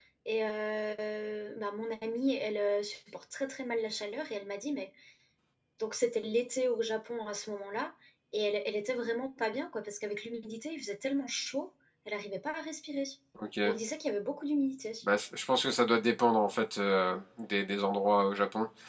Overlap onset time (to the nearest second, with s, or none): none